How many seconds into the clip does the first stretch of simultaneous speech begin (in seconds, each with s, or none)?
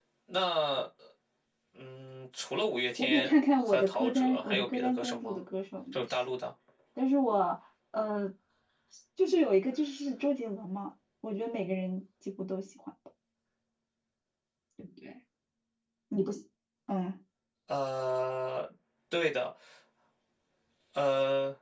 3.0 s